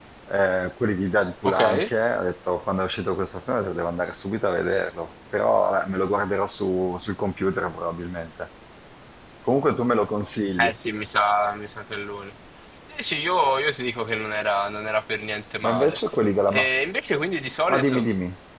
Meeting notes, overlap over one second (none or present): none